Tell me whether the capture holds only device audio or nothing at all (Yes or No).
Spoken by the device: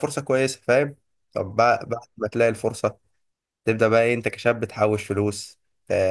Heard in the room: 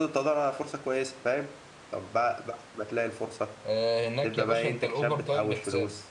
No